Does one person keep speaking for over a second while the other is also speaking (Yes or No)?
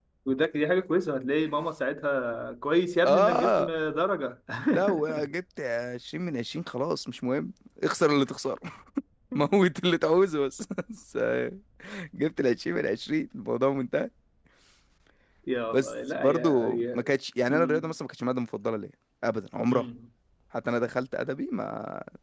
Yes